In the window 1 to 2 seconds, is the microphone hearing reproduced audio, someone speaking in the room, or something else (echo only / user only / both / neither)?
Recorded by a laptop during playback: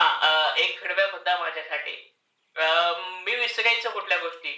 echo only